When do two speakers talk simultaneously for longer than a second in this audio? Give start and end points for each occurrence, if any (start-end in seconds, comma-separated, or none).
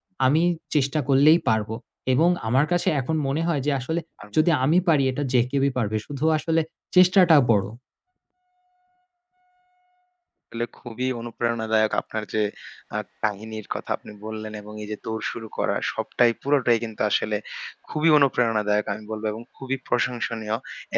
none